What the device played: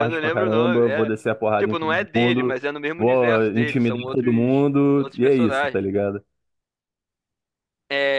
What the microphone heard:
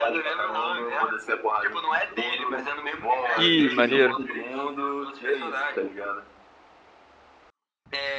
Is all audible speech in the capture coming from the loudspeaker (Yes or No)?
No